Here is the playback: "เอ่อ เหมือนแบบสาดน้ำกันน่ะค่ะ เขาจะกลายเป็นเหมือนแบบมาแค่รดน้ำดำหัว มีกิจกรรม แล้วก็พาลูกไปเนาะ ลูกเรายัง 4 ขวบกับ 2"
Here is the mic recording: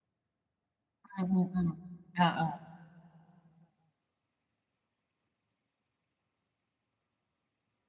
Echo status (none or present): none